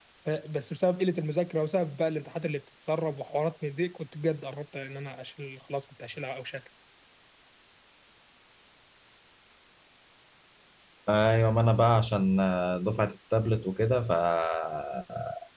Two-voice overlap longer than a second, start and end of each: none

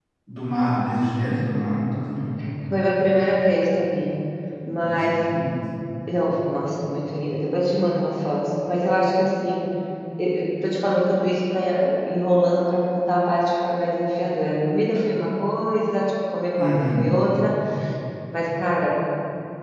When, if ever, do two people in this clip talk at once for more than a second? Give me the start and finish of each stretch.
none

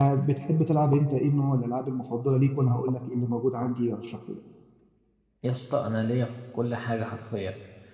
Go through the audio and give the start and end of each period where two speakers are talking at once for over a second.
none

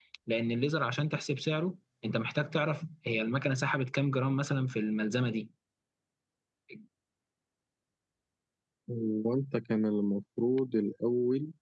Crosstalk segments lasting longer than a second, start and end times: none

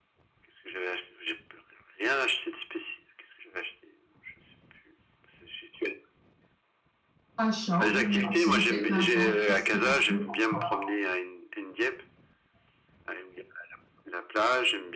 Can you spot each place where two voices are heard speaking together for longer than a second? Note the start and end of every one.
7.8-10.2

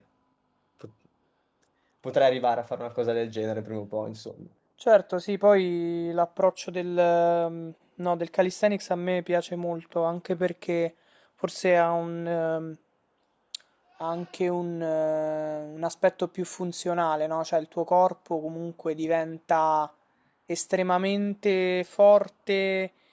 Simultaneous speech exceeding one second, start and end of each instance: none

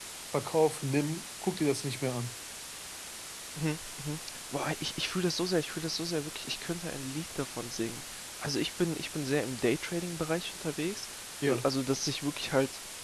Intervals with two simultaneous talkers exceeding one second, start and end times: none

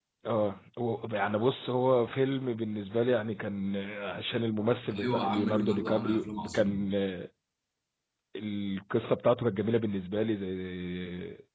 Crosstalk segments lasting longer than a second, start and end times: 4.9-6.8

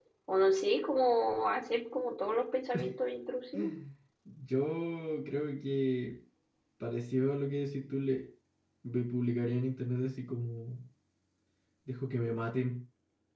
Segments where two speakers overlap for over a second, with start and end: none

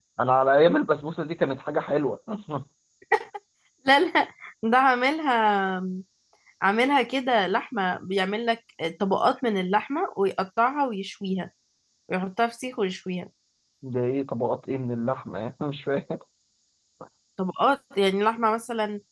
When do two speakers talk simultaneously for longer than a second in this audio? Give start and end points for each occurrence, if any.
none

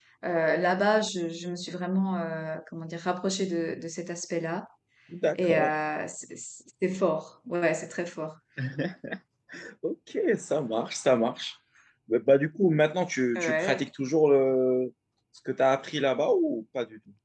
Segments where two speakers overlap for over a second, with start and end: none

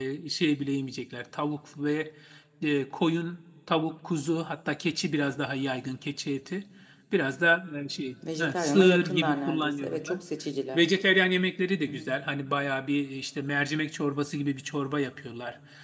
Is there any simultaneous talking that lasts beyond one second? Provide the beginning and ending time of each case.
8.4-10.2

